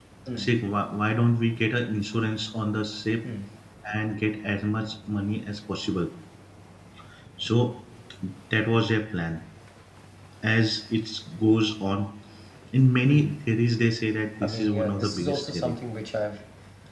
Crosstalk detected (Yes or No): Yes